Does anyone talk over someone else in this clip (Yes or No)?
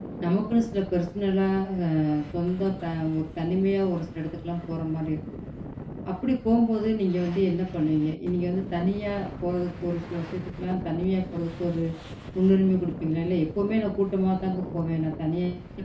No